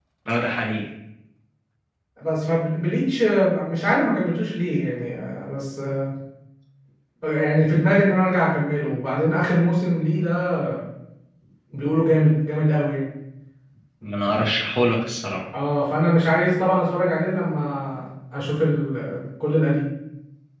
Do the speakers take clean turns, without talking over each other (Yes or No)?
Yes